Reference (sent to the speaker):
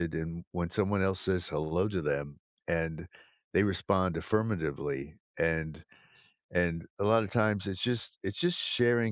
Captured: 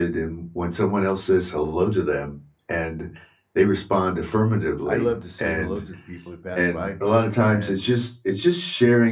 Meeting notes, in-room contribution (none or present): present